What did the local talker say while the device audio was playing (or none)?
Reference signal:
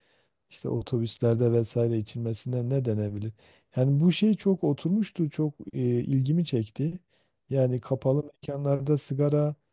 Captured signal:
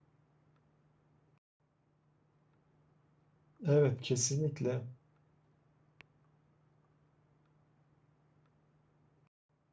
evet kesinlikle.